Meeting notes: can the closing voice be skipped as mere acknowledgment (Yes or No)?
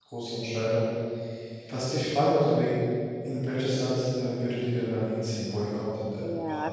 No